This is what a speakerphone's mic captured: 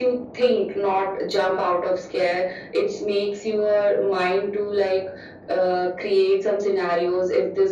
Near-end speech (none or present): none